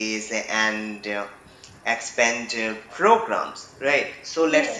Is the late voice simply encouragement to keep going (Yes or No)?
Yes